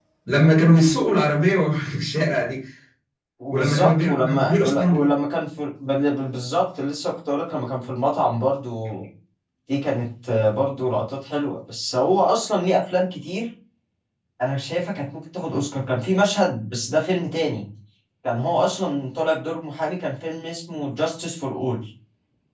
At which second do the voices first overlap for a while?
3 s

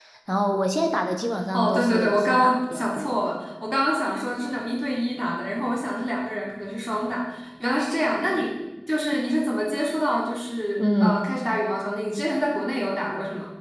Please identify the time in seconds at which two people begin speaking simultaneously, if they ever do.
2 s

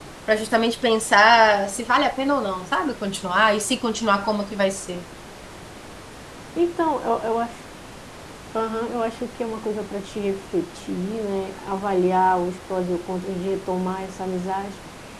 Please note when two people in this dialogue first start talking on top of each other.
none

